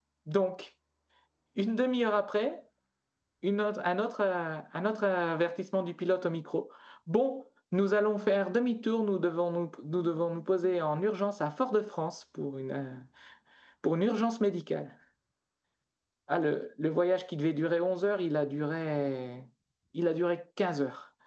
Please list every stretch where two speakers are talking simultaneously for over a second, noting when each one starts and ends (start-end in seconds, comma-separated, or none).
none